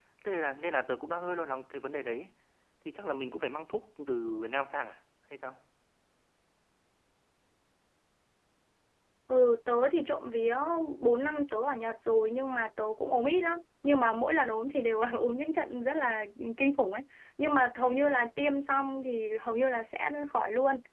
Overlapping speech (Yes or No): No